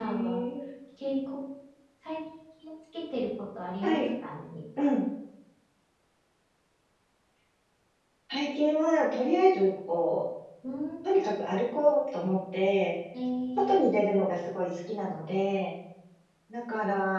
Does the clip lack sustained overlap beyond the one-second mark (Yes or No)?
Yes